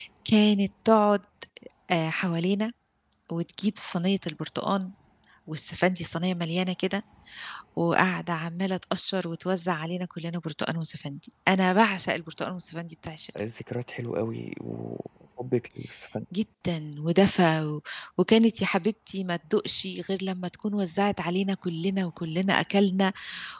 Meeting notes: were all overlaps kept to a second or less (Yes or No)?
Yes